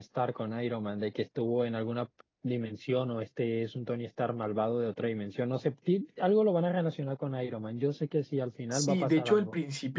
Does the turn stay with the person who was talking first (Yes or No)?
No